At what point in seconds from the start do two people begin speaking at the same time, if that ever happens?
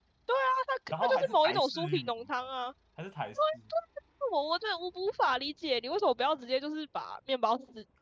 1.0 s

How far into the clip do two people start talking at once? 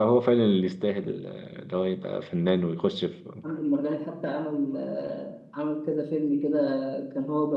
none

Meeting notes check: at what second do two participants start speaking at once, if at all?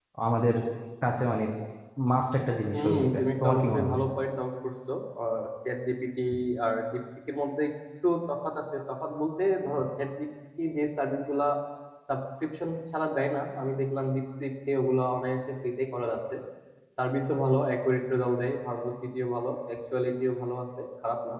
2.7 s

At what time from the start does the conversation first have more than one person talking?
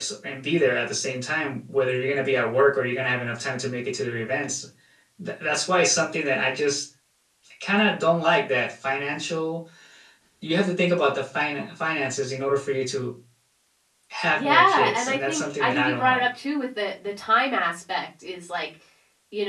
14.3 s

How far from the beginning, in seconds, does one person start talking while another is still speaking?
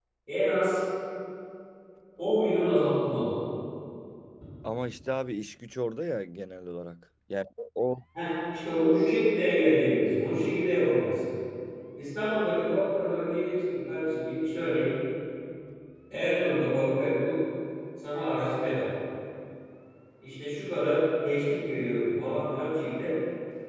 none

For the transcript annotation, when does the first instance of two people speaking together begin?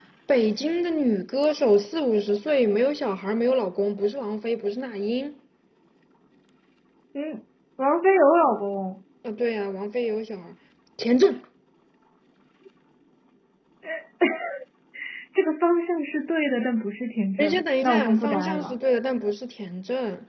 17.4 s

